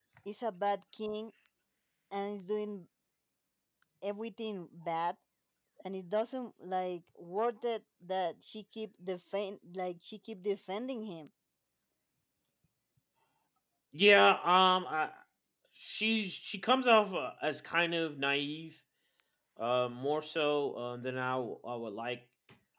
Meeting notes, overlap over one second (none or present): none